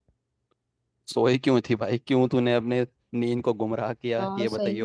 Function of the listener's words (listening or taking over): taking over